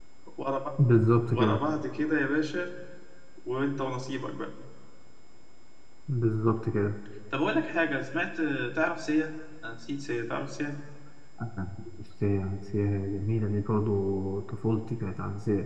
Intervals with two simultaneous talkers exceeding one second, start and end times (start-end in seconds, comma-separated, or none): none